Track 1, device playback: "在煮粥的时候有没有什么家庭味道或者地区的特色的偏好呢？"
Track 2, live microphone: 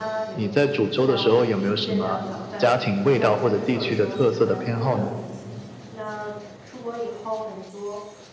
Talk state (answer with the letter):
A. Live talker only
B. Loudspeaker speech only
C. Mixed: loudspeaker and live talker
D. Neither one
C